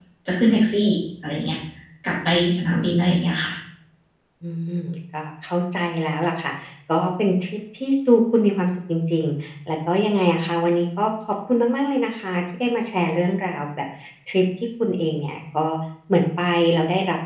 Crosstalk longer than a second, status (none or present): none